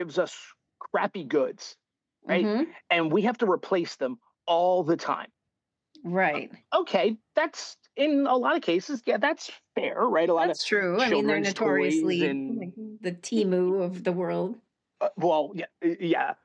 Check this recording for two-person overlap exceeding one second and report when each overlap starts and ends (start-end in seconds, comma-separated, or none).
11.0-12.7